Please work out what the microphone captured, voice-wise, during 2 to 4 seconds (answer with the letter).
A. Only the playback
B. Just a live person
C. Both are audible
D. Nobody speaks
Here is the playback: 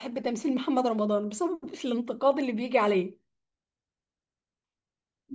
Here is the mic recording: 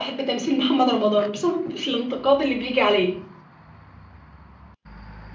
A